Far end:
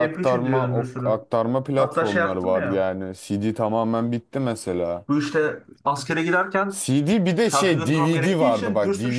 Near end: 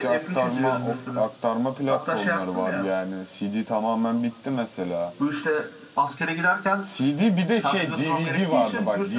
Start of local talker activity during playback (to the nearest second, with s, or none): none